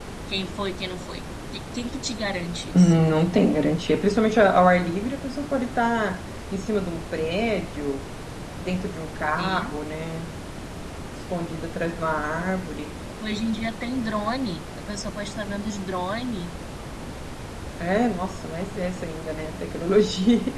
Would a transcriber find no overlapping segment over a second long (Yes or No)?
Yes